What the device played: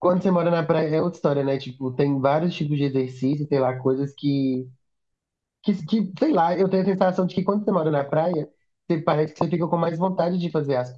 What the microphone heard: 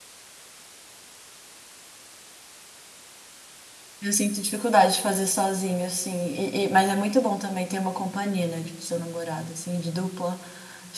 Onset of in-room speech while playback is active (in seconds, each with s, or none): 4.0 s